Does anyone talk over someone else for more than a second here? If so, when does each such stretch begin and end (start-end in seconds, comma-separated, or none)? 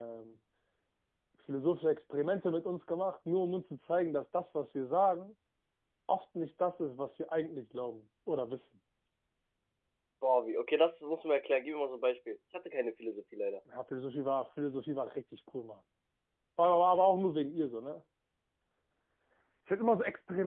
none